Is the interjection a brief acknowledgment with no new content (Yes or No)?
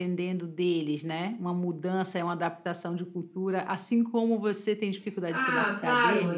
No